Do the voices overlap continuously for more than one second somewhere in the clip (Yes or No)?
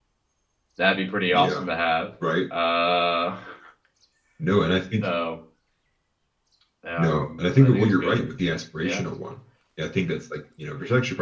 Yes